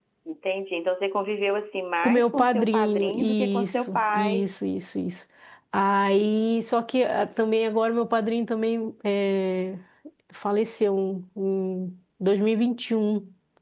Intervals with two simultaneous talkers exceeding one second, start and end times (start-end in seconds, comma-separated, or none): 2.0-4.4